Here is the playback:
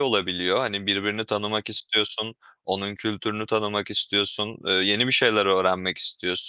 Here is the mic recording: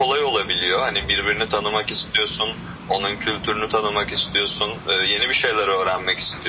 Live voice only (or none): none